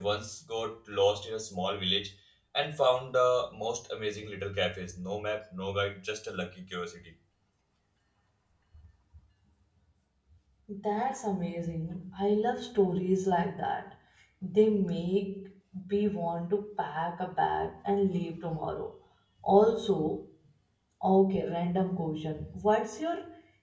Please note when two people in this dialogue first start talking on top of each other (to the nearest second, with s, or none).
none